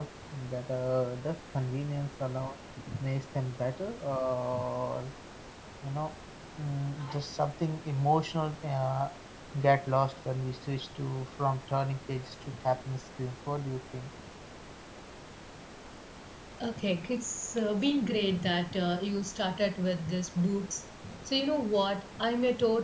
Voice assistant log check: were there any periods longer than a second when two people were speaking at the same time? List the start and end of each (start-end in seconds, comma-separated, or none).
none